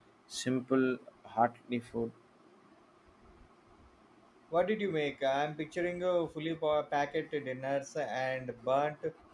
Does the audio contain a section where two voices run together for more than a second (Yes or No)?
No